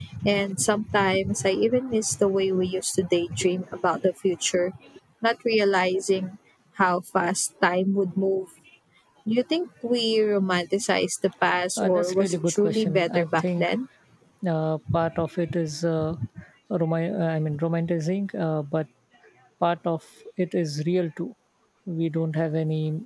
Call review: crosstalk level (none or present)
present